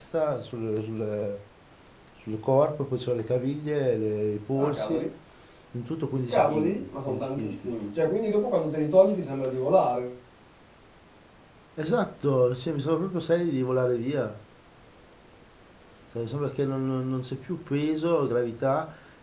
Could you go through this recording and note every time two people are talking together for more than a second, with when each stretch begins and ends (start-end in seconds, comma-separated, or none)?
6.3-7.7